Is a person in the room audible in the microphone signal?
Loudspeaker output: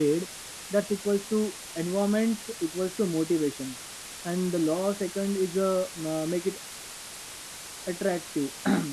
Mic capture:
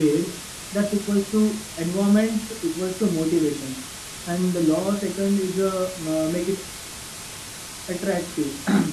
No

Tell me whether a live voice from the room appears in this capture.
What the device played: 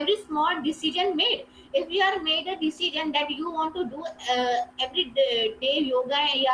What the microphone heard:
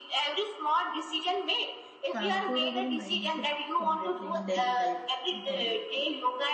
Yes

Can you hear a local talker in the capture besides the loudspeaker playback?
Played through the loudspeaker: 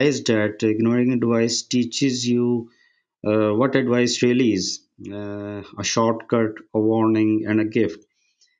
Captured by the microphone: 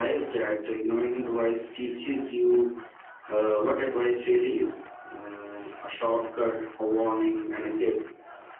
No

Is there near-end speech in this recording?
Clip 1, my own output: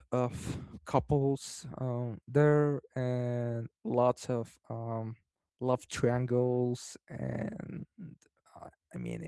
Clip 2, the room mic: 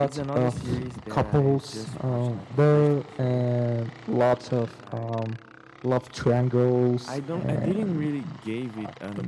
Yes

